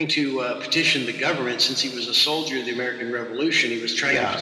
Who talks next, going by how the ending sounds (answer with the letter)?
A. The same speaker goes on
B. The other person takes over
A